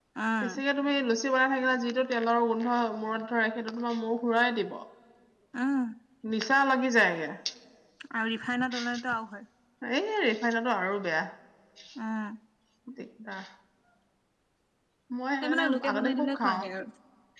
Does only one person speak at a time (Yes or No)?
No